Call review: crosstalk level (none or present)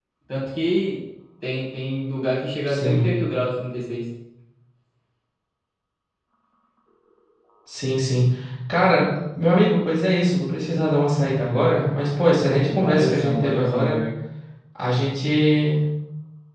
present